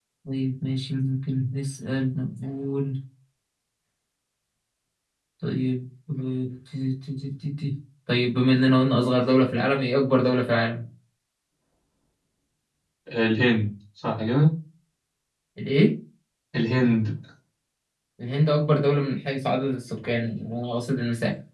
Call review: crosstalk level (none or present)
none